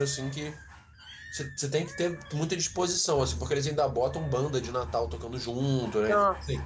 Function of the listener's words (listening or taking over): listening